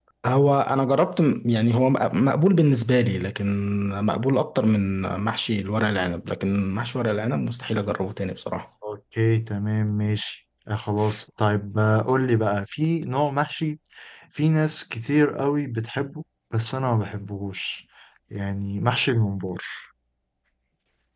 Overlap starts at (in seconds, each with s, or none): none